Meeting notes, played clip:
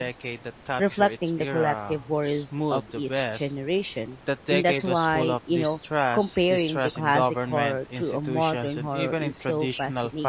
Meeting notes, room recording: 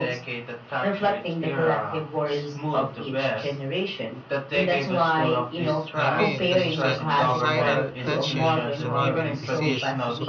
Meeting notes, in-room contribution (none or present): present